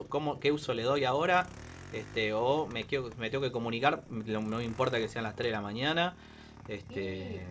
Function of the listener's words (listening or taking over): taking over